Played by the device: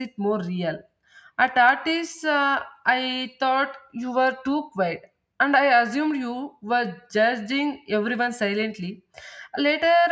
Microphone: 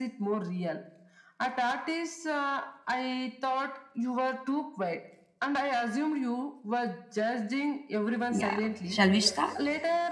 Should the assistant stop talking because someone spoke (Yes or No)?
Yes